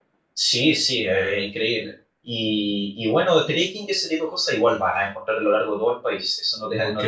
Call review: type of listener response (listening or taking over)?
taking over